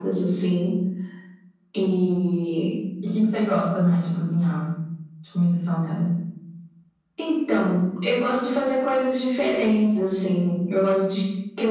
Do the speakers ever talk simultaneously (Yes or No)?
No